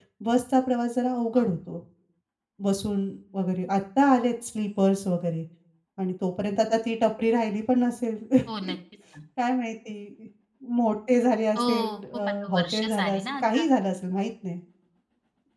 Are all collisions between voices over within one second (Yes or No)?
No